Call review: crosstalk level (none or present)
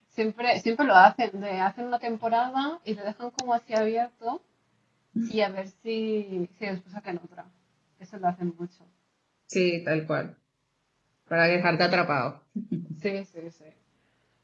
none